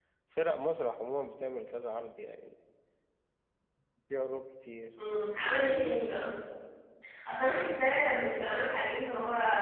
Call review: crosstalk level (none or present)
none